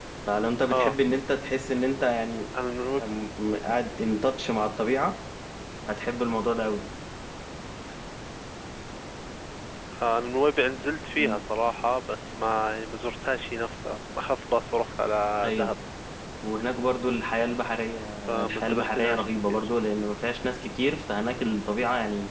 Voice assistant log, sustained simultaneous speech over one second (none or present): present